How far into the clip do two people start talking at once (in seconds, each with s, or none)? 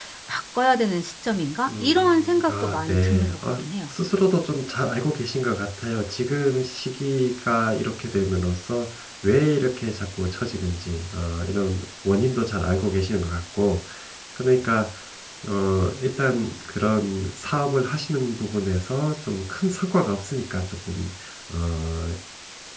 1.7 s